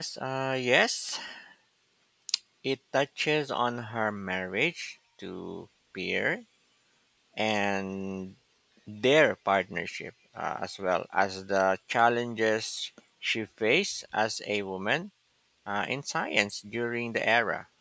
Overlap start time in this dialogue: none

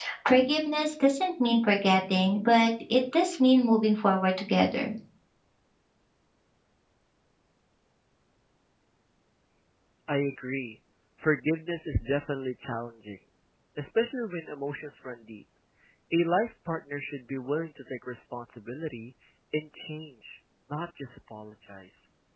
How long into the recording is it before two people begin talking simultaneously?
none

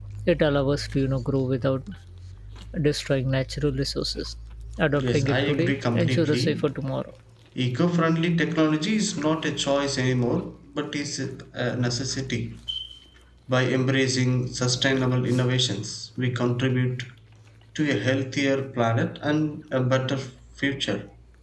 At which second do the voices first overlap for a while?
5.0 s

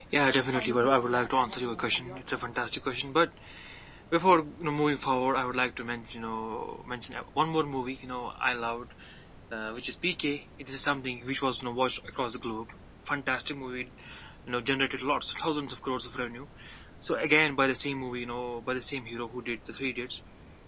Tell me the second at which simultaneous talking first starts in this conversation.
0.5 s

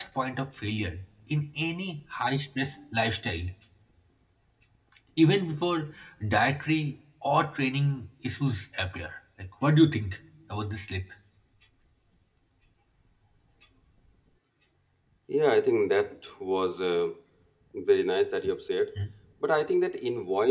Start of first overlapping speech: none

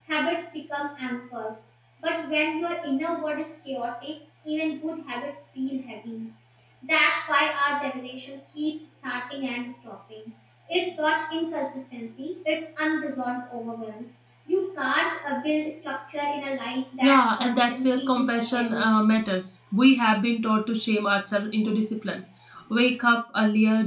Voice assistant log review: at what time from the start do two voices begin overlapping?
17.0 s

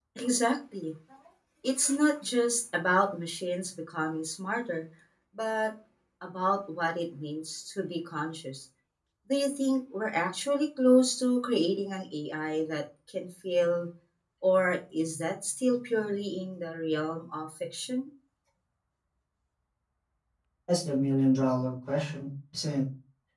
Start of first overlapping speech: none

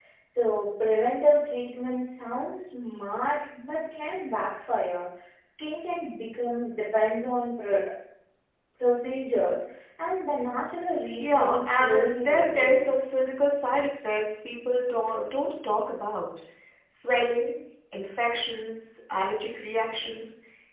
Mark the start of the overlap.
11.2 s

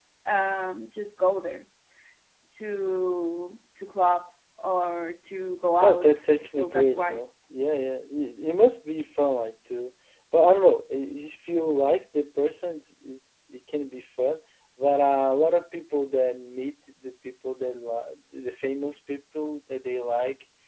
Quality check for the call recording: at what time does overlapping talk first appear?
5.8 s

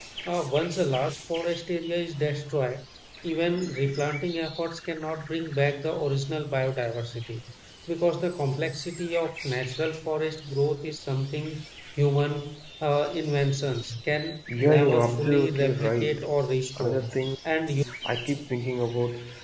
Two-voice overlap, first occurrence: 14.6 s

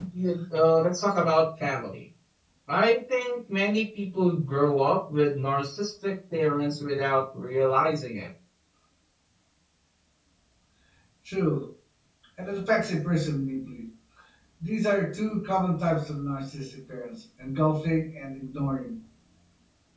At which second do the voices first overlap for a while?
none

